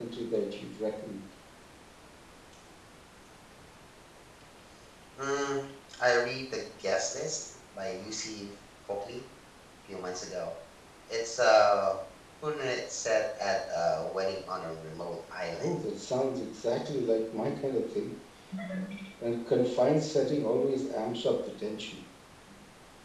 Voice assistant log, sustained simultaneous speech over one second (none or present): none